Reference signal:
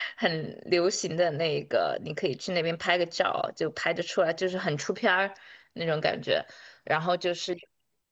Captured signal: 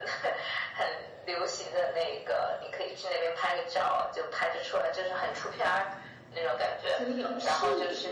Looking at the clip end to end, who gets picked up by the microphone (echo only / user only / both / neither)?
both